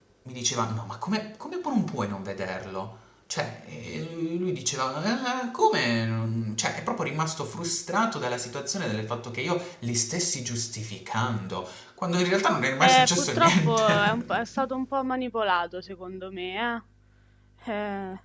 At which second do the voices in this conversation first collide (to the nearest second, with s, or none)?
13 s